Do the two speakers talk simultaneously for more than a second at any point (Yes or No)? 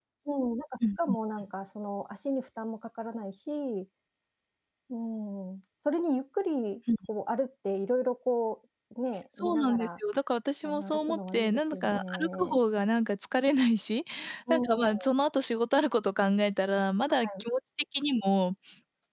Yes